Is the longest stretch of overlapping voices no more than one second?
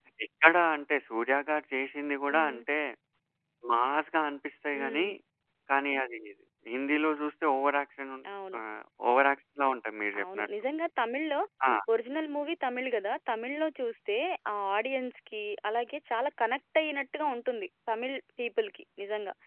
Yes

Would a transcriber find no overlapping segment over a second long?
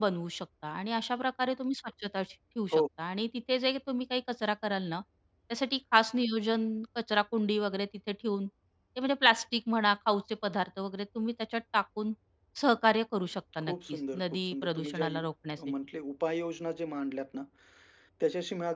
No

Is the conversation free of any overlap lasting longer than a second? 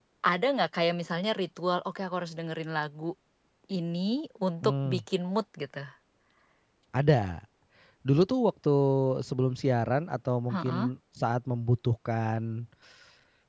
Yes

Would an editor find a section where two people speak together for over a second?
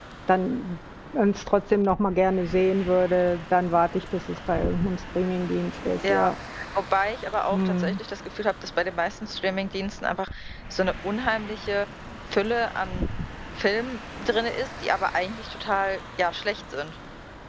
No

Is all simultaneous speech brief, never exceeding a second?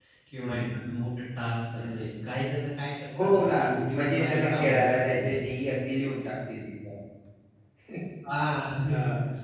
No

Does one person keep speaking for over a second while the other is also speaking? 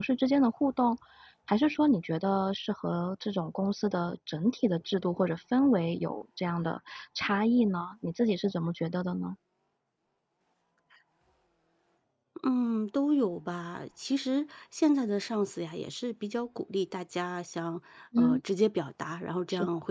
No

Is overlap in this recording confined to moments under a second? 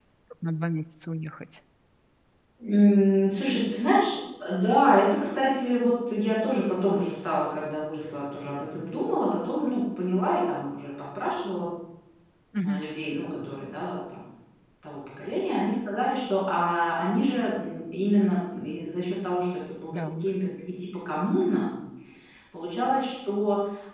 Yes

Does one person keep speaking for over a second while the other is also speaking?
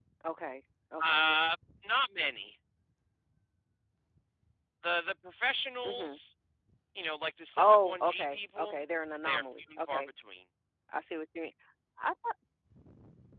Yes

